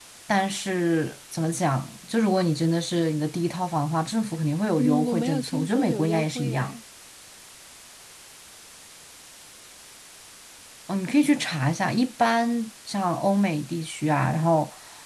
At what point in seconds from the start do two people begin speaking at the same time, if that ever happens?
5 s

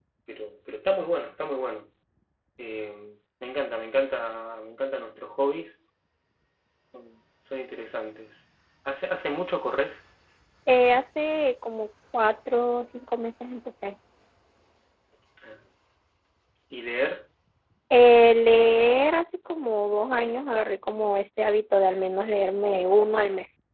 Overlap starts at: none

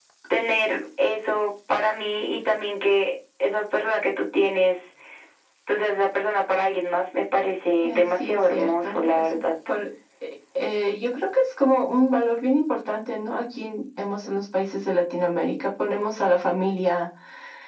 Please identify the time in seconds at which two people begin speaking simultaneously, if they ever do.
8 s

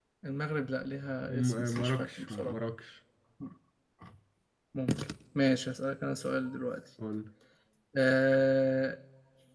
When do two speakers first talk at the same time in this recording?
1 s

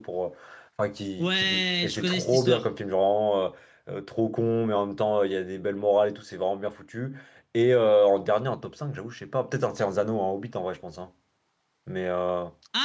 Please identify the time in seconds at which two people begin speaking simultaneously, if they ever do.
1 s

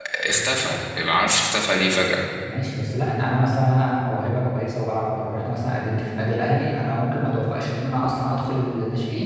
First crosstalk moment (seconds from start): none

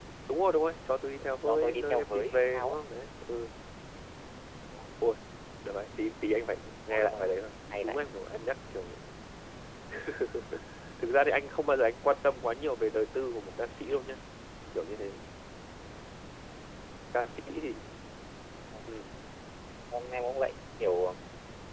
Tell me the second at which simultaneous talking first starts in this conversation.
1 s

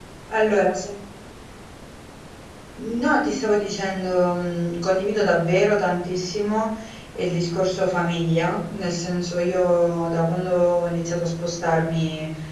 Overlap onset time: none

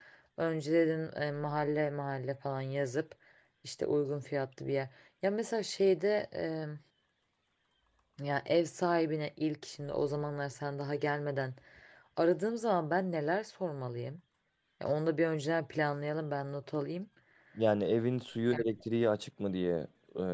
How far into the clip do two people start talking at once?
none

